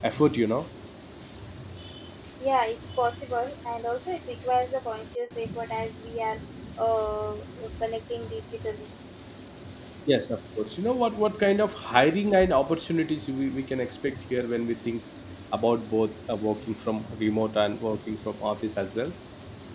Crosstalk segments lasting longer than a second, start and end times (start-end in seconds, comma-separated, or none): none